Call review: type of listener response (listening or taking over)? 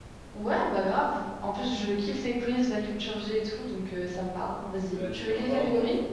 taking over